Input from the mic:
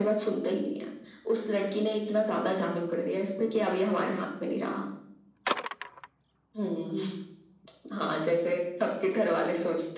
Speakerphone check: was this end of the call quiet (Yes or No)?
Yes